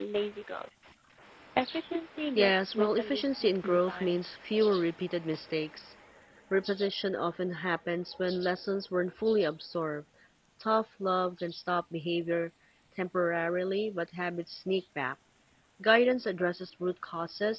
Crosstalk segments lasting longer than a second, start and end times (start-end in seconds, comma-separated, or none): 2.4-4.2